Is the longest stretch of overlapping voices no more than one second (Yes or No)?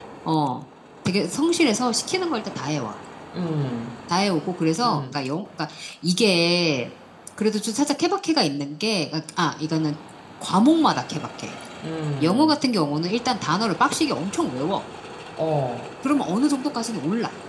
Yes